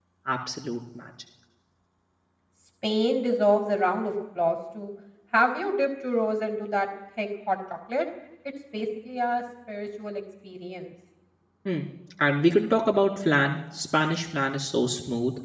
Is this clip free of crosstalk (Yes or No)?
Yes